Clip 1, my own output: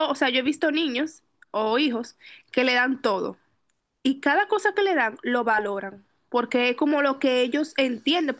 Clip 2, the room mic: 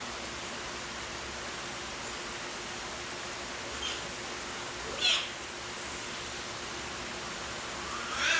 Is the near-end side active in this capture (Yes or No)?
No